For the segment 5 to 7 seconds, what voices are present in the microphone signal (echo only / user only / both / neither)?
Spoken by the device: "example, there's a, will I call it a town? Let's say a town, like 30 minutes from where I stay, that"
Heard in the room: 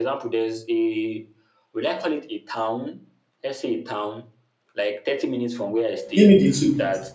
both